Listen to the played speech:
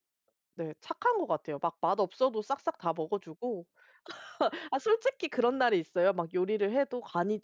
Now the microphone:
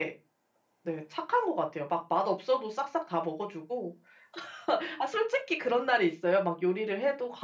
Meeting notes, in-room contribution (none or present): none